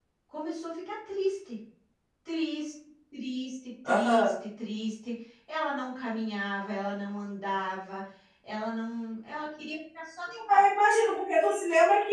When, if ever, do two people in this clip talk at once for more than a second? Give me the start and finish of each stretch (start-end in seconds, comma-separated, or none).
none